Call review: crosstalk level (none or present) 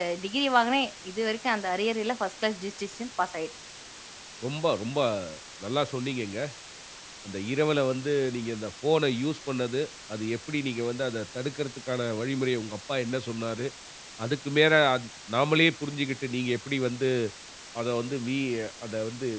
none